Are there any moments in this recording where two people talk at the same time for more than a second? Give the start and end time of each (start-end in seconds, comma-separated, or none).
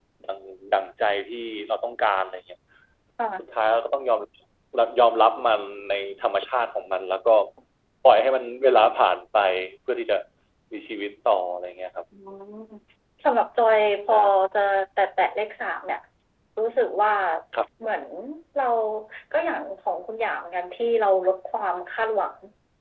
none